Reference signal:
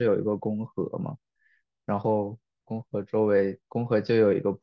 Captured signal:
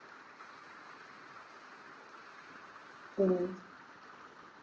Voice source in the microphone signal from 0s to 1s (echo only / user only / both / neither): neither